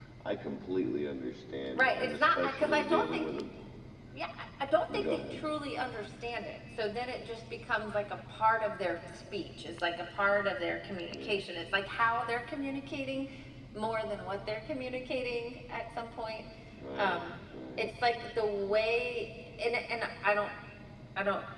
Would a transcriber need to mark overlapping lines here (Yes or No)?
Yes